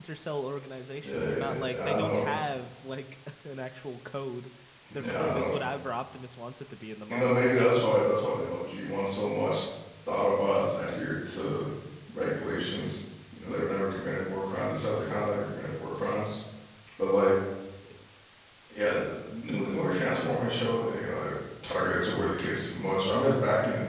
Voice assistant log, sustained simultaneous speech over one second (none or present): present